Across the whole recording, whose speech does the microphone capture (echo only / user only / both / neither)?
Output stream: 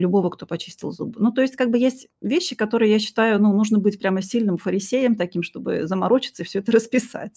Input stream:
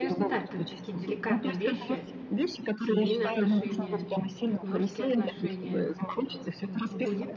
both